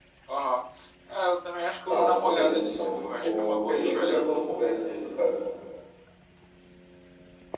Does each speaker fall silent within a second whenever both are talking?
No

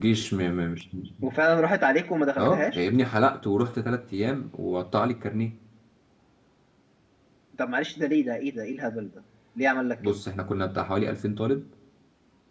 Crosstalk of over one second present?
No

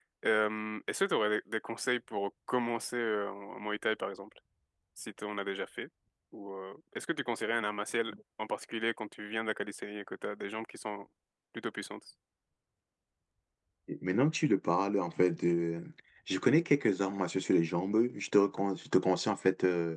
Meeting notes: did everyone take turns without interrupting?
Yes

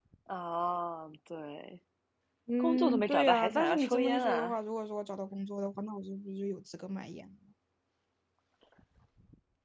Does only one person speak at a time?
No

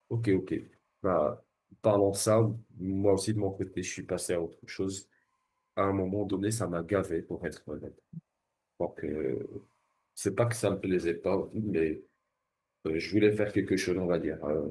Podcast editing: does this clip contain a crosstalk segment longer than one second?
No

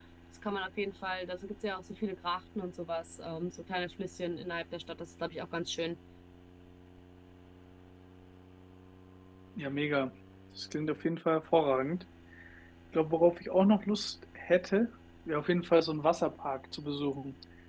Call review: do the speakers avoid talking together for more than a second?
Yes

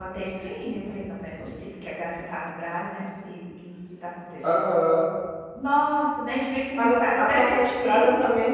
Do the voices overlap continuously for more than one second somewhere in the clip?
Yes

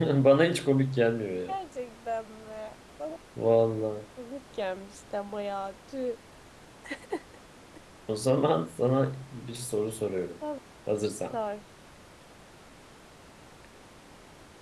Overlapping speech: No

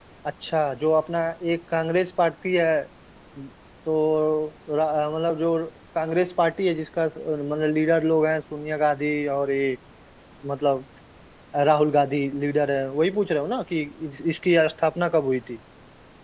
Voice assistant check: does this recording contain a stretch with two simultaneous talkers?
No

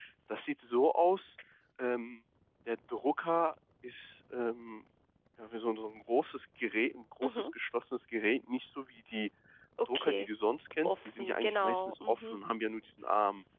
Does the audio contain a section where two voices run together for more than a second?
Yes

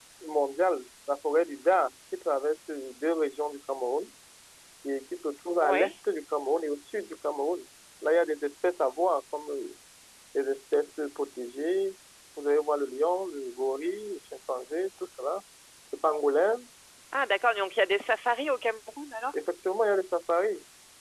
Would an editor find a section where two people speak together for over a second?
No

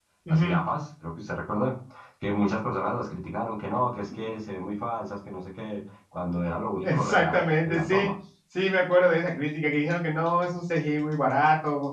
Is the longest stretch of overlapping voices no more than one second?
No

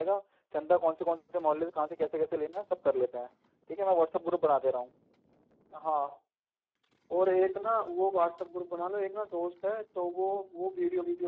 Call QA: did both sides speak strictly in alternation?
Yes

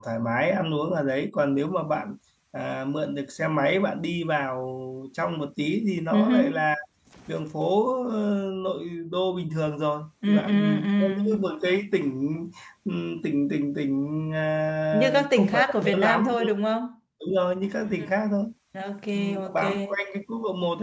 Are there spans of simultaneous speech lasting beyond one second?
Yes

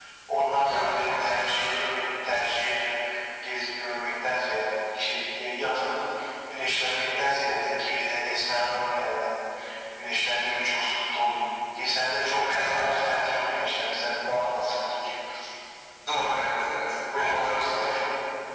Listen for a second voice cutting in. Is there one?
Yes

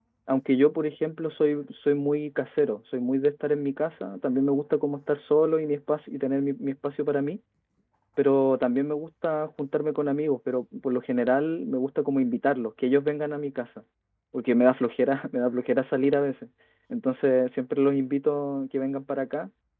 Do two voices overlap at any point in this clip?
No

